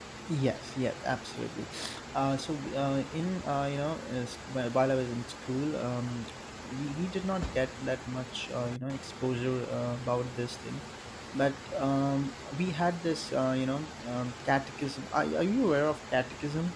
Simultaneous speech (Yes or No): No